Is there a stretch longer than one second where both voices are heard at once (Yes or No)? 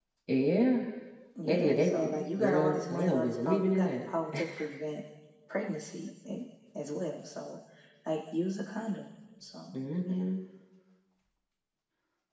Yes